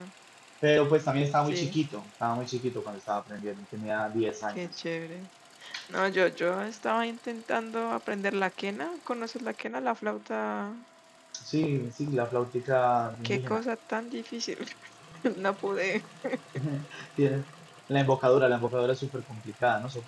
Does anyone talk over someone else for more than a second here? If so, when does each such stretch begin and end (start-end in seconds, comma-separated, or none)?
none